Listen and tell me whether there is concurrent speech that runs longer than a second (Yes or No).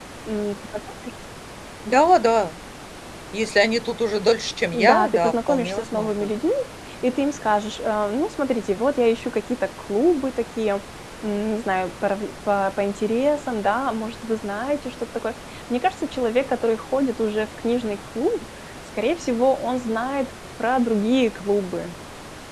Yes